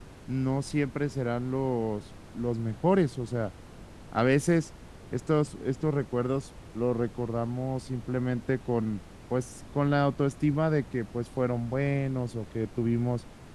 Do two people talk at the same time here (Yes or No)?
No